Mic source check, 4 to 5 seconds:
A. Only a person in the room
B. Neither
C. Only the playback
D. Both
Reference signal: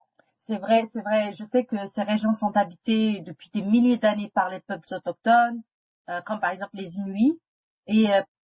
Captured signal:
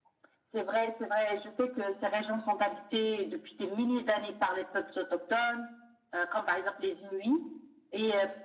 C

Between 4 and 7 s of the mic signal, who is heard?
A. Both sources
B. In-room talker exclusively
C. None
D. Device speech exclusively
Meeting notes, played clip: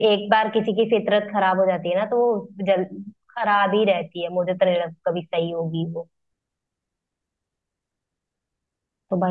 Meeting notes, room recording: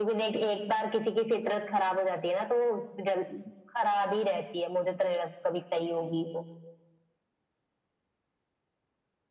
D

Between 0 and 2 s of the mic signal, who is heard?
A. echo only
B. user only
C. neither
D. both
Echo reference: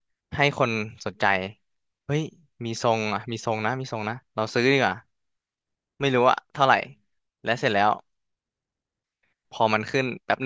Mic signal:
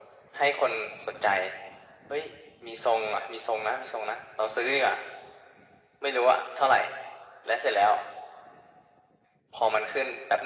A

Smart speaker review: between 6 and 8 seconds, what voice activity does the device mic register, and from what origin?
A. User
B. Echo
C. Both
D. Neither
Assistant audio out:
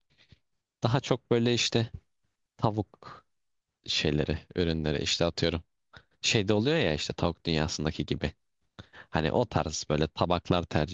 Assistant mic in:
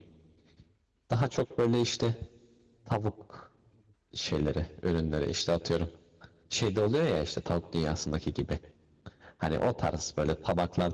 B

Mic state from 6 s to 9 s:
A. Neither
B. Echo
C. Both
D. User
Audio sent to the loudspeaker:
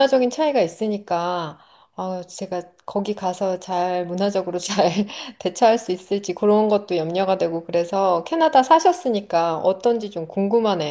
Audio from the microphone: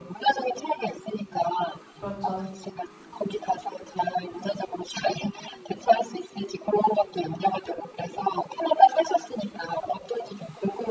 B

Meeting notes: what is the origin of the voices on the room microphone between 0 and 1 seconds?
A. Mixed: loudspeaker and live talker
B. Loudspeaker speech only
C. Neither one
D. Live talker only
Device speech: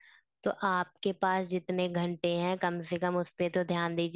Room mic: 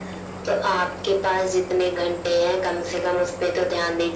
B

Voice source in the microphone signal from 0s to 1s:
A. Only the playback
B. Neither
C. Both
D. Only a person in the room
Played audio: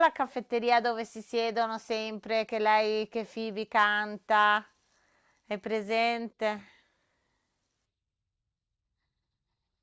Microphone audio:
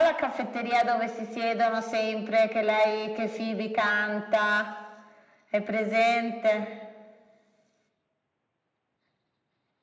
A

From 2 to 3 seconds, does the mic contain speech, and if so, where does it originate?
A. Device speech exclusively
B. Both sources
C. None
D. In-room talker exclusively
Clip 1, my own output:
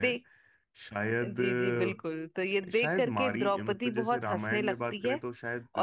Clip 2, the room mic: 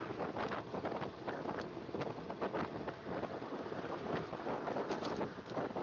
C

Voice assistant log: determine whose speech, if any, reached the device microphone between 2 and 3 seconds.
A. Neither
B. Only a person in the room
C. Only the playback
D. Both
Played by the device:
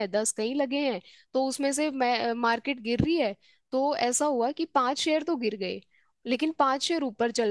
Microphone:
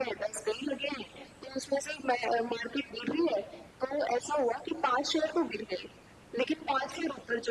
C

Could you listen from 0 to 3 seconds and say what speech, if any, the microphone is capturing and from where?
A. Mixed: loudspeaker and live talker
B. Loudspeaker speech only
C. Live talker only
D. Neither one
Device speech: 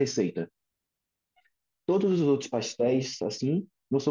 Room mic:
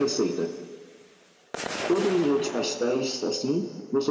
B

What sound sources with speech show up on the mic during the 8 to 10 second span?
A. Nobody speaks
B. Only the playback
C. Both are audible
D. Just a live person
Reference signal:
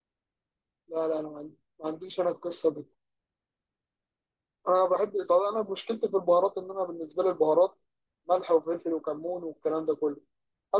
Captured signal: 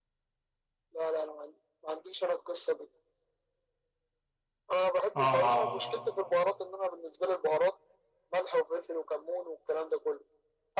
B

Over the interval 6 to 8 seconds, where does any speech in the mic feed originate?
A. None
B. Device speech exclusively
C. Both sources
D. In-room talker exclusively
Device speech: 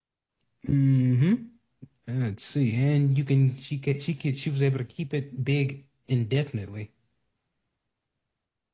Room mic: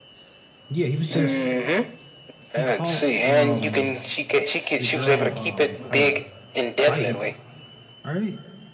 C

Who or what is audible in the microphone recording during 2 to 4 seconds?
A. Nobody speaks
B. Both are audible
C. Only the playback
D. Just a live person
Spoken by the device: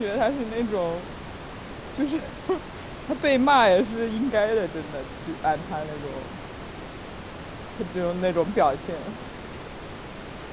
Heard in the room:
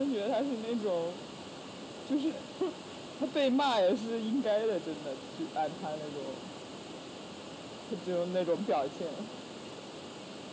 C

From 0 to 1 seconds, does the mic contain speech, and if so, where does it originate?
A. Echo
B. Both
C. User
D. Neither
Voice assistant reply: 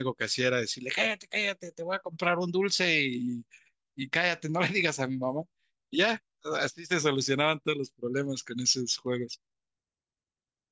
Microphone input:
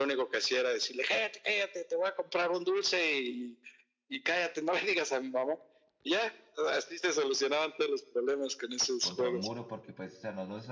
A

